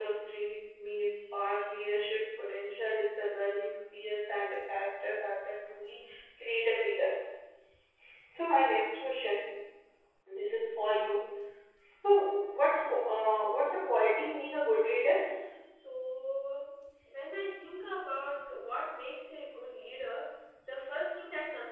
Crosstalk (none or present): none